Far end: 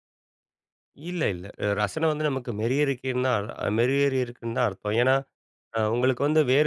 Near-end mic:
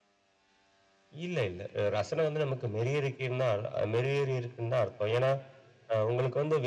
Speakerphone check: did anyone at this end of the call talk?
No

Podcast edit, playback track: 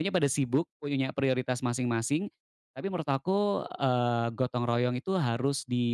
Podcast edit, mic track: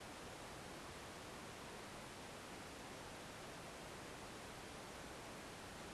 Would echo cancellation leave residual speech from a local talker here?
No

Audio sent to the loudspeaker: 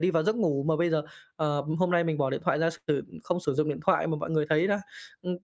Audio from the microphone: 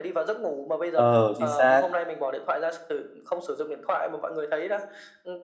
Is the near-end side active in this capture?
Yes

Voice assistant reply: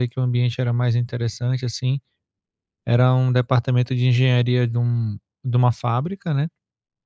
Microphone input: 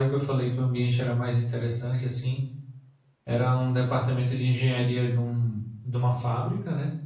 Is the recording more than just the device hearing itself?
No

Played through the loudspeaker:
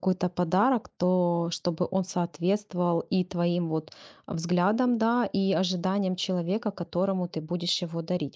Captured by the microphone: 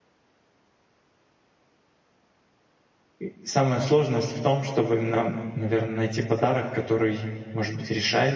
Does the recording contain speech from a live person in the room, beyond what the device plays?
Yes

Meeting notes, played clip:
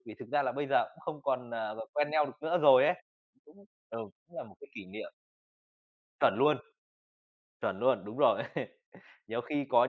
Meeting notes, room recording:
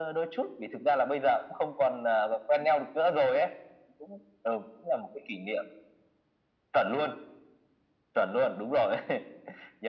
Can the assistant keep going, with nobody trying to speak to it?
Yes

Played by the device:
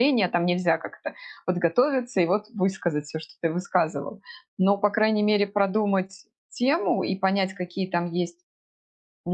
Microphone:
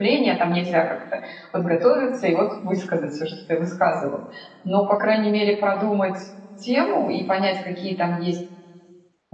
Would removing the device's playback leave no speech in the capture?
Yes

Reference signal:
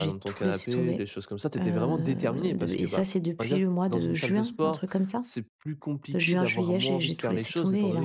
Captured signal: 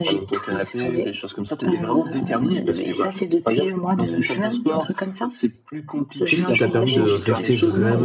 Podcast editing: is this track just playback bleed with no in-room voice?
No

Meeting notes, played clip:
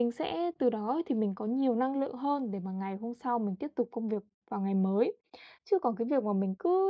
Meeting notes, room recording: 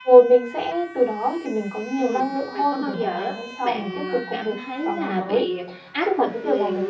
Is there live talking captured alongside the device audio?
Yes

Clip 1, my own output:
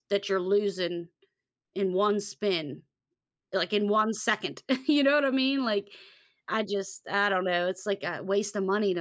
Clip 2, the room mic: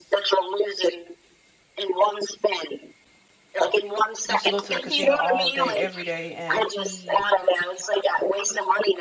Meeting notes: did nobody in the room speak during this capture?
No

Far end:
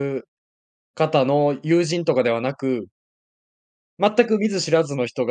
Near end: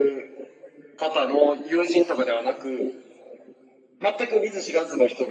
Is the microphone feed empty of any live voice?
Yes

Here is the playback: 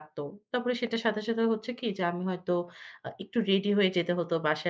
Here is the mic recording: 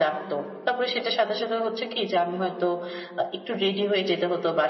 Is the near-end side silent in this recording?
Yes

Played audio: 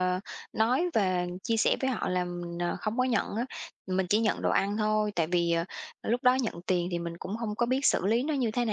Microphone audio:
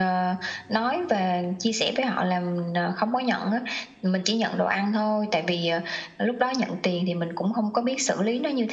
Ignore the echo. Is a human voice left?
No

